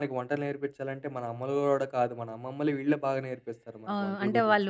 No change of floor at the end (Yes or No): No